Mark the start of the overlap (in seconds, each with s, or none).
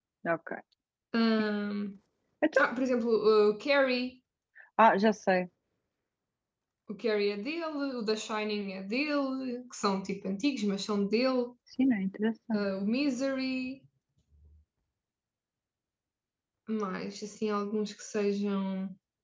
none